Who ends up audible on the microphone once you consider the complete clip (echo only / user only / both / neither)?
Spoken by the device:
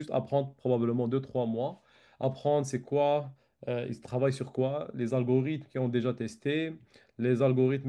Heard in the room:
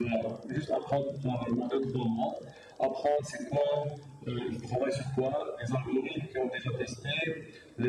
echo only